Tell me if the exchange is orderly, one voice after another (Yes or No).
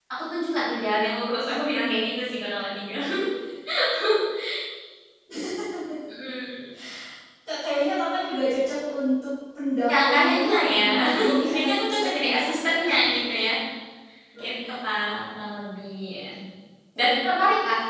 No